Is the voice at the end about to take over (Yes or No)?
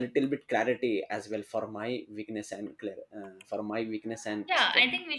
Yes